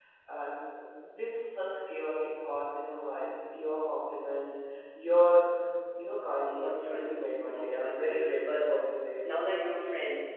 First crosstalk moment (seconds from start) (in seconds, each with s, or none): 6.4 s